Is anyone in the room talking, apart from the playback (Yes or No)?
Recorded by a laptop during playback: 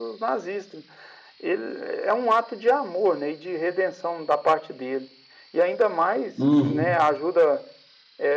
Yes